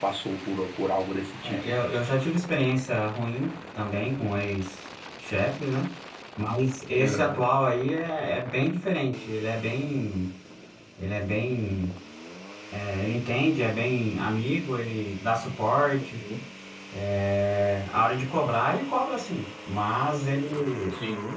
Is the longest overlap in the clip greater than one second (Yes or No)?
No